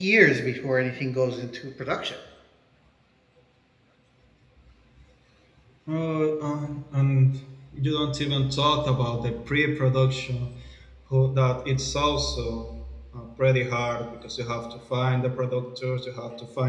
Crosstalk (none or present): none